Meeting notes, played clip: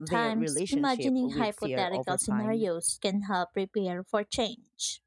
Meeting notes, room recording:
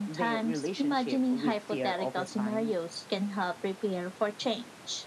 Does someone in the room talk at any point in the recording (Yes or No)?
No